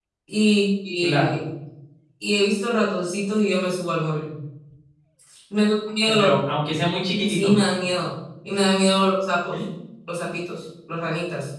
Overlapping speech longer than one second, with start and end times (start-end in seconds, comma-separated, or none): none